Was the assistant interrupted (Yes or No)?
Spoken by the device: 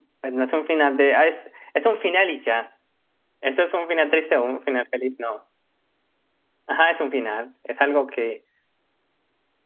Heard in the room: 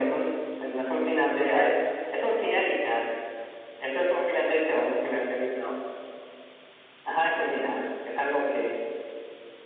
No